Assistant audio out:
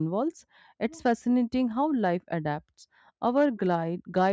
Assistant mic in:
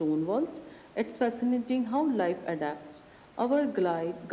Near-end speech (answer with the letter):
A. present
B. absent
B